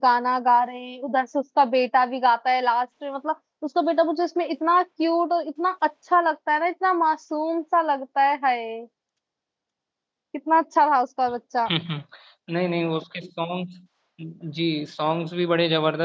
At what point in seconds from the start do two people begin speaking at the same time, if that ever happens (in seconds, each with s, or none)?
none